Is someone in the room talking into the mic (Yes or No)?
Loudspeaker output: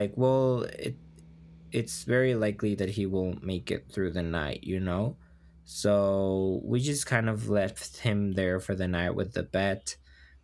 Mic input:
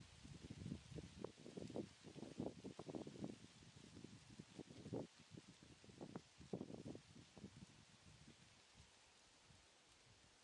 No